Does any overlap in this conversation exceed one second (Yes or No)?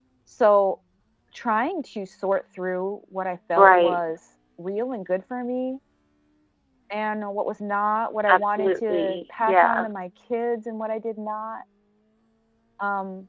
Yes